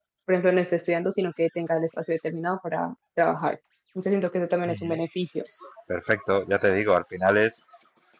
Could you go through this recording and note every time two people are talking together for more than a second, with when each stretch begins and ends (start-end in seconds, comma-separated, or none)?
none